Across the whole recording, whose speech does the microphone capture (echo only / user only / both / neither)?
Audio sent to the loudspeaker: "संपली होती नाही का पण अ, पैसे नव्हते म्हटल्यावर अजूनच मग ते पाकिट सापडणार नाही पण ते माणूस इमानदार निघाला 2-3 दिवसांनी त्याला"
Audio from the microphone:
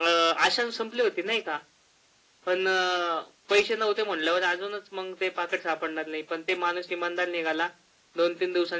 echo only